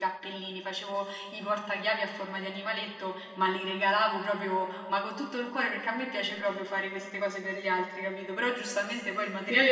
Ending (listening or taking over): taking over